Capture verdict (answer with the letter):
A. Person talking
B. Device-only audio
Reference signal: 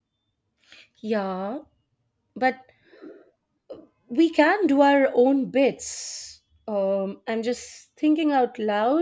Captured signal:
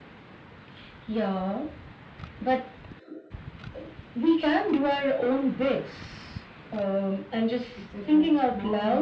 A